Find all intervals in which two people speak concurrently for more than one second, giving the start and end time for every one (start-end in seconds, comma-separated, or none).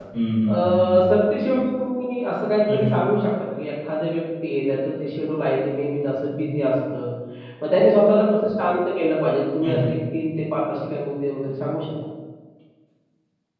none